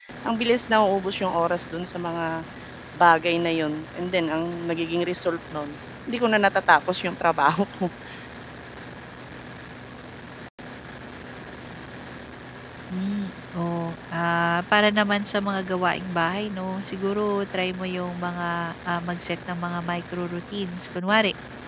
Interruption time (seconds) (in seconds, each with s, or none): none